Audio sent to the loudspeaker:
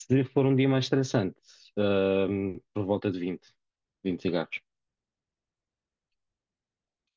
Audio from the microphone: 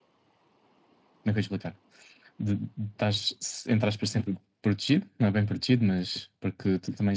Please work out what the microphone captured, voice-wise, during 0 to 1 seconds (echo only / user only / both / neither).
neither